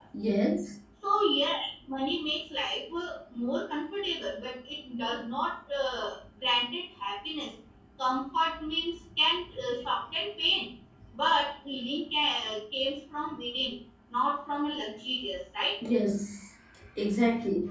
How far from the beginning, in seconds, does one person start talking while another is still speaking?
none

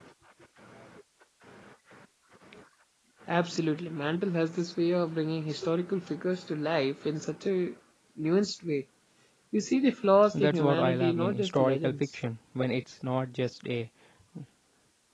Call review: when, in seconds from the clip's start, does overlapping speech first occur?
10.4 s

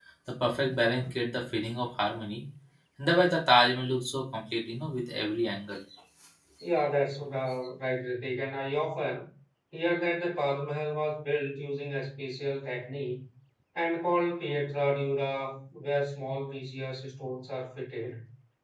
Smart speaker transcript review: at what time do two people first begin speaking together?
none

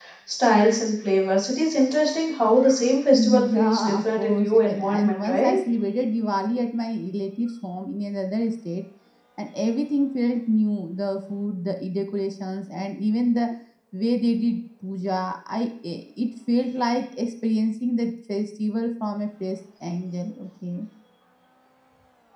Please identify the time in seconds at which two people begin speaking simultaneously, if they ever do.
3.1 s

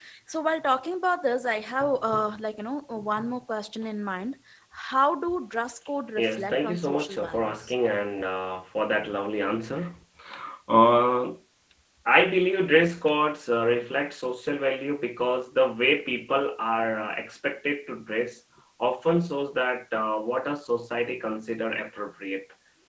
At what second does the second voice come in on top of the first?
6.2 s

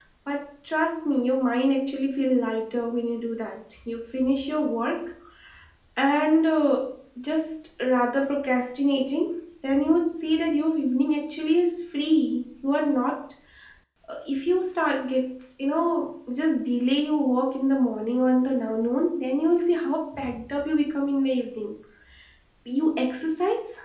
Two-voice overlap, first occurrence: none

